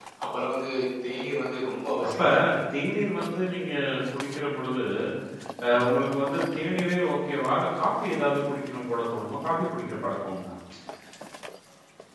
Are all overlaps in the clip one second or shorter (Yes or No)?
Yes